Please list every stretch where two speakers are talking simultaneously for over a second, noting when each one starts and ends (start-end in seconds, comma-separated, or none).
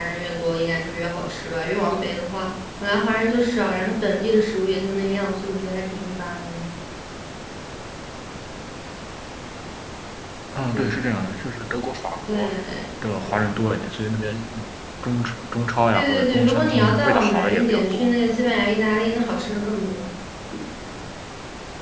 15.9-18.0